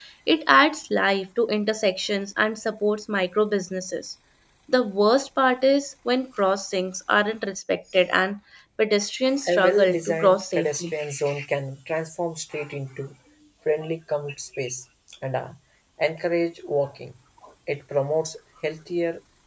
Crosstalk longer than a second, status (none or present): present